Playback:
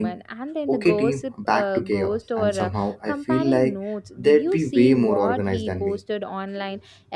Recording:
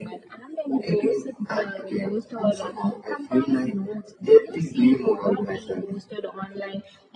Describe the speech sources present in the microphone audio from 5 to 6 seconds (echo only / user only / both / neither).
echo only